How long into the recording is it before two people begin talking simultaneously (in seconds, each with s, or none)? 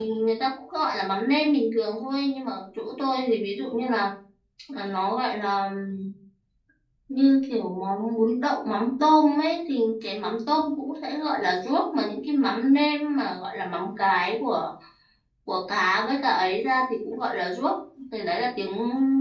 none